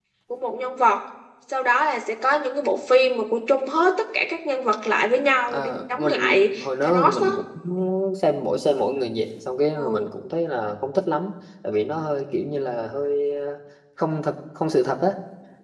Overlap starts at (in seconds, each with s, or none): 5.5 s